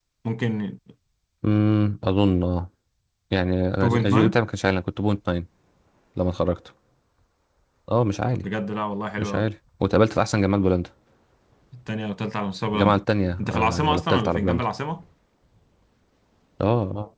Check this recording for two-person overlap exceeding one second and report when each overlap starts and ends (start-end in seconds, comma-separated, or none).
13.4-14.6